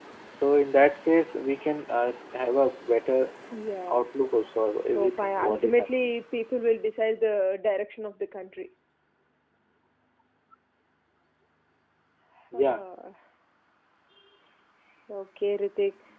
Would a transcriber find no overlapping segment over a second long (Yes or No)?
No